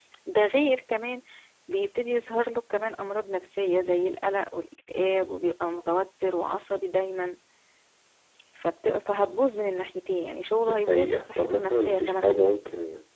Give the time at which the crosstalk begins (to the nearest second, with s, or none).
11 s